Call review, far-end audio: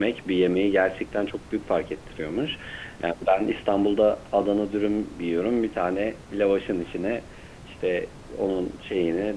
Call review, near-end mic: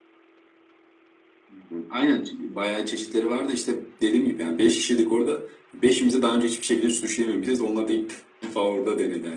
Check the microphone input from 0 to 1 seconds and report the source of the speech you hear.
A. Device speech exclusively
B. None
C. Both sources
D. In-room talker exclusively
B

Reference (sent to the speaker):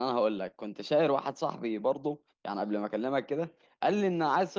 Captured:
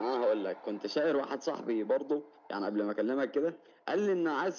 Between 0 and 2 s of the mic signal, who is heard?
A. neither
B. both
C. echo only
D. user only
C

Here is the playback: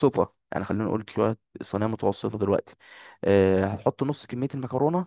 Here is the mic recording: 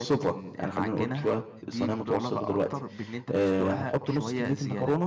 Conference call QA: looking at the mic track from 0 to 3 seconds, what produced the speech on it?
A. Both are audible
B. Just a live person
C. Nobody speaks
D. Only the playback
A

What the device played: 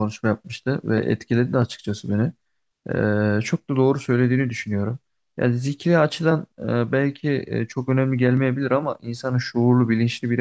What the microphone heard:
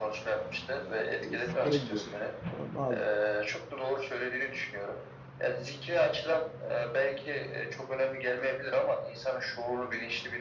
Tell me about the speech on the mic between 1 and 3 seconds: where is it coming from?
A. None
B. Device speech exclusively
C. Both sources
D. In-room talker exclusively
C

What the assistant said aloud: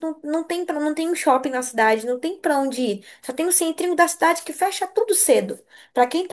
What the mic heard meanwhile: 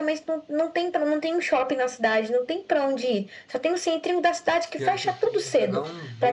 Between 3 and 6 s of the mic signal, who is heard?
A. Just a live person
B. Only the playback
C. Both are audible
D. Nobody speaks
C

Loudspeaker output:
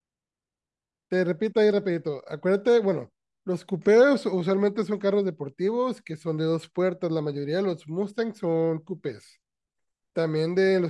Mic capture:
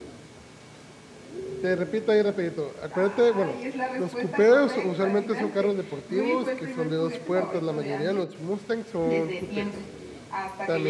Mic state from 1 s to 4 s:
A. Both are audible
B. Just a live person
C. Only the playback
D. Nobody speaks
A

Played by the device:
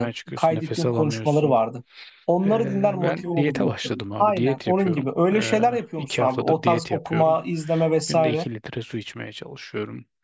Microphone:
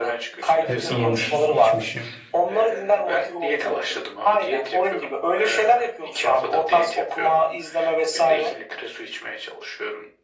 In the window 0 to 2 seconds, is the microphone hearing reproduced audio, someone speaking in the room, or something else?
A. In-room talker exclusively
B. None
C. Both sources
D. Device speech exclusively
C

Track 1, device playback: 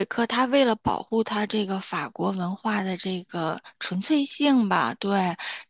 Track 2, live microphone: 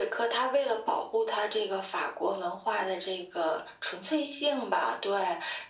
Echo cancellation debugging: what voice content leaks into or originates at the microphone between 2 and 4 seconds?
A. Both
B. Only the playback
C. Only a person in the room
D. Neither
B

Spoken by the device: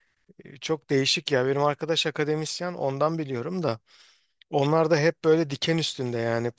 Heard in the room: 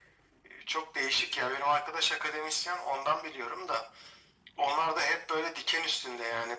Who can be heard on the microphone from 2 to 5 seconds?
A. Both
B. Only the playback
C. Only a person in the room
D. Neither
B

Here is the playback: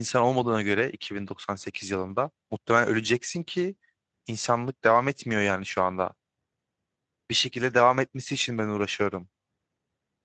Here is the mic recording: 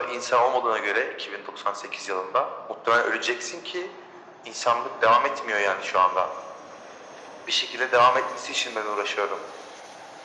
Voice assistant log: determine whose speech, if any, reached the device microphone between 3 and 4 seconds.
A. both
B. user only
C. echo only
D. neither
C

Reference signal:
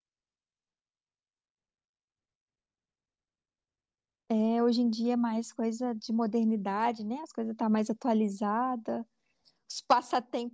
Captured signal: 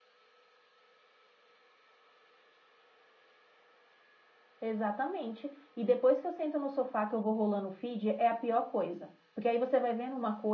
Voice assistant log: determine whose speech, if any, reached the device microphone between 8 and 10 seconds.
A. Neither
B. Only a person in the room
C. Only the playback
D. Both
B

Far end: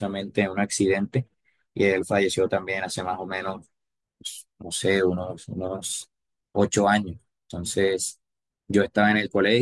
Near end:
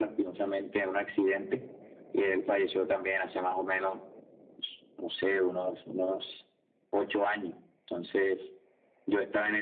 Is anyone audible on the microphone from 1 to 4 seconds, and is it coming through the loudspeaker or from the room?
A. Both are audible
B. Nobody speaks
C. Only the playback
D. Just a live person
C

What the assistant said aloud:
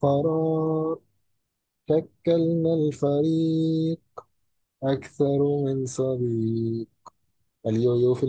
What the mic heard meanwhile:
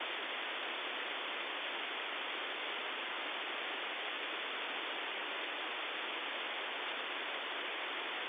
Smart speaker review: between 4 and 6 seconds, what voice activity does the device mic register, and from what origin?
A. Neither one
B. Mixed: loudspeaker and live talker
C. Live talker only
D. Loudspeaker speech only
A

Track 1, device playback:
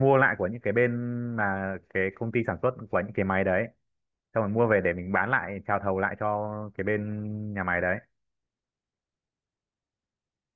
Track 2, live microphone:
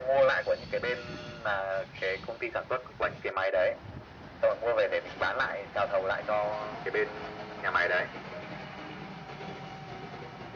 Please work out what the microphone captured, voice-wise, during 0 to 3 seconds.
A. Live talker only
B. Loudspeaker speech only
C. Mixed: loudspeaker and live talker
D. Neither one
B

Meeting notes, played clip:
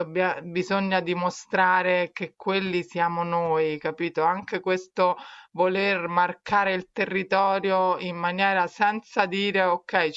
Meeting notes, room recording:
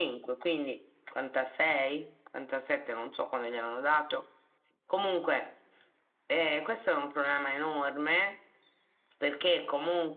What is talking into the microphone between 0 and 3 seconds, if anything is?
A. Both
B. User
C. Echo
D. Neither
B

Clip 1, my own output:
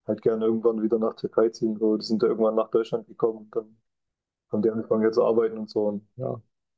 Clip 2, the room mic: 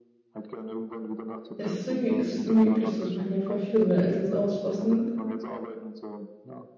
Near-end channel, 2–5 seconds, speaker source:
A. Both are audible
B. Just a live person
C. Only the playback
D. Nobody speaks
A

